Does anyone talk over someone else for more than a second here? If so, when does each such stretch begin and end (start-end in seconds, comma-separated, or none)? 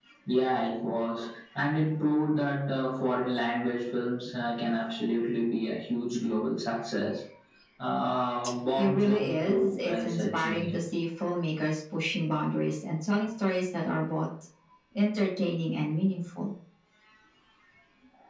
8.8-10.8